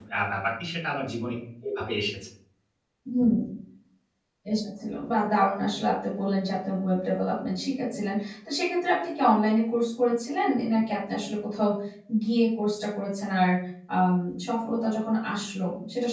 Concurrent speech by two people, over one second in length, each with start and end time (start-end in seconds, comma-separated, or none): none